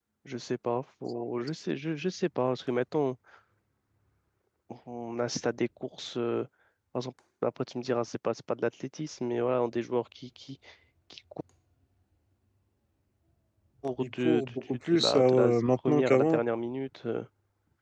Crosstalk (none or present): present